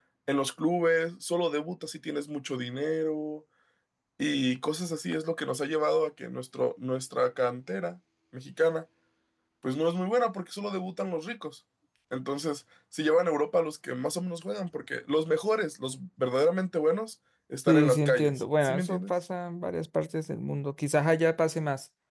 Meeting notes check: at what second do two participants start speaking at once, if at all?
17.7 s

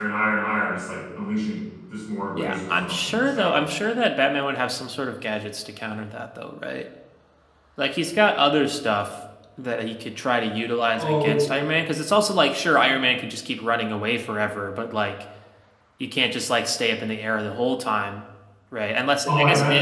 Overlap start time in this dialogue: 2.3 s

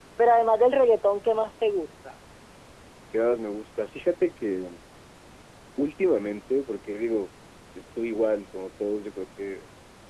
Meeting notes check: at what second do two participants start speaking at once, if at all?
none

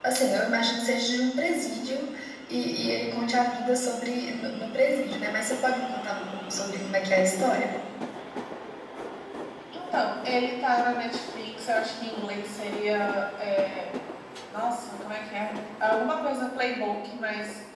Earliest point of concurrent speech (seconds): none

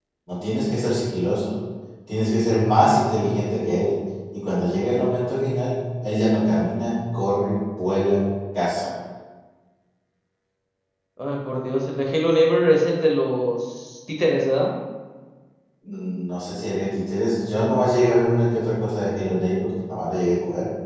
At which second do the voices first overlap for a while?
none

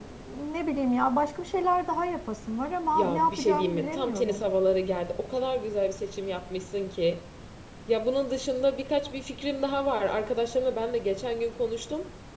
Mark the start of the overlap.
2.9 s

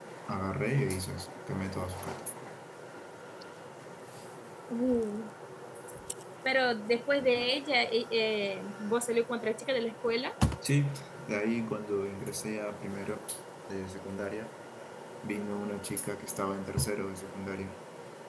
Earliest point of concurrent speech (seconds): none

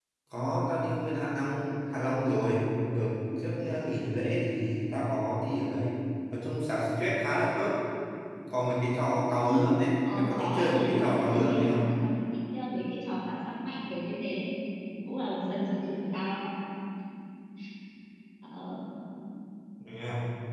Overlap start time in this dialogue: 10.0 s

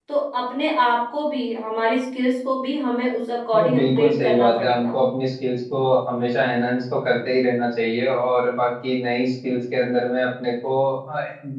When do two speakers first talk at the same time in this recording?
3.5 s

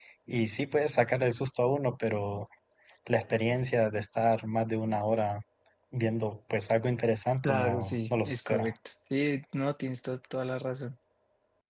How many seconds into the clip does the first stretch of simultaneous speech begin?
7.4 s

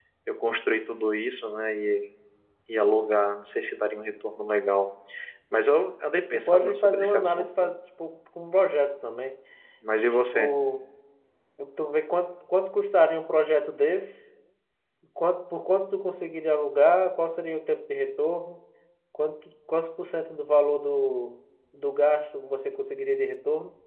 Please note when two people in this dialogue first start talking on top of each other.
6.5 s

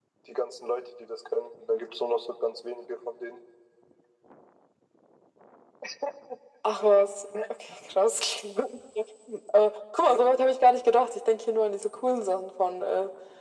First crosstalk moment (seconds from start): none

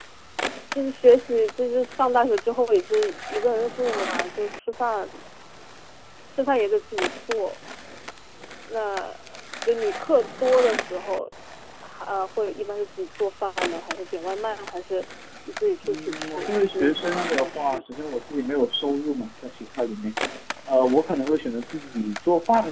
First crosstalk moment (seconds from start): 15.8 s

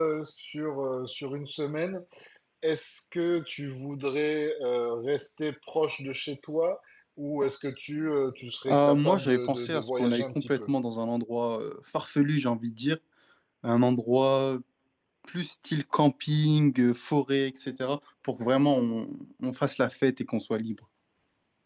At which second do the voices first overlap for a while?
8.7 s

